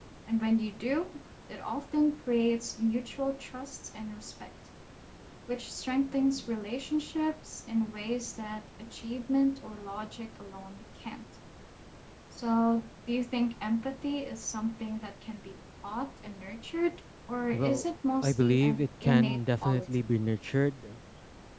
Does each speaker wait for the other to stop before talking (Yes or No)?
No